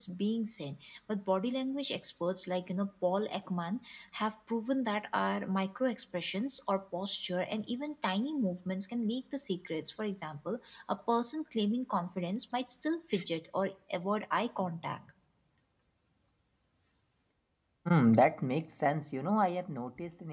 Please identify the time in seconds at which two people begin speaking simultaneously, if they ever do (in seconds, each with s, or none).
none